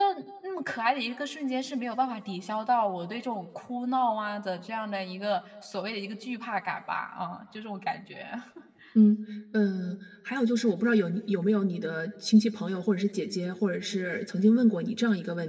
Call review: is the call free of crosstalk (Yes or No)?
Yes